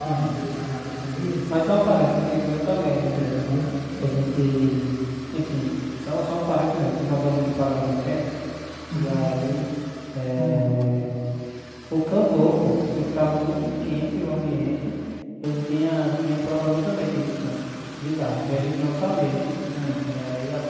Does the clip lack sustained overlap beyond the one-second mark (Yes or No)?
Yes